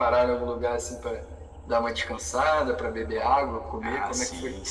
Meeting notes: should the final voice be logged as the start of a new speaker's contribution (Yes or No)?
Yes